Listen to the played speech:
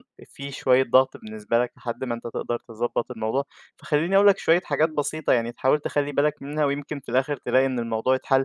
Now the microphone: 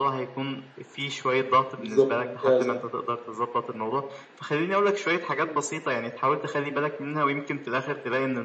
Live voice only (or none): بالضبط، ممتازة.